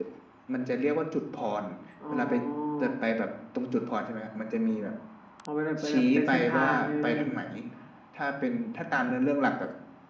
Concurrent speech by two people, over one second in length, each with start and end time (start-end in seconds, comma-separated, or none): 5.9-7.2